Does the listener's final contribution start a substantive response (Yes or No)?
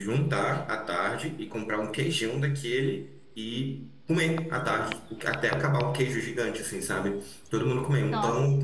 No